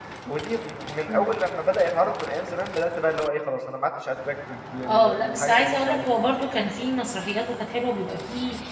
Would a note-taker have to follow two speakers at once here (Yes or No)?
Yes